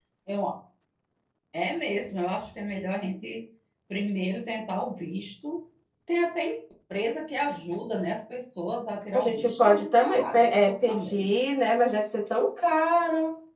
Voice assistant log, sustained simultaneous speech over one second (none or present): present